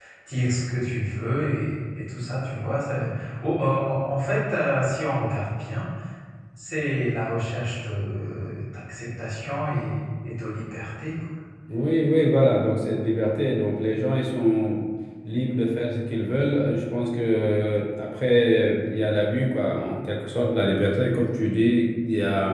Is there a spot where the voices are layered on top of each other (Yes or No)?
No